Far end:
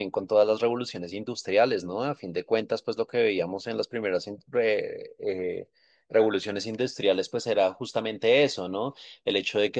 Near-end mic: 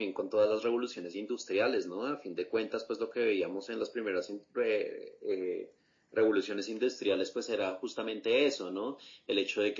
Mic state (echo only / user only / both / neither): echo only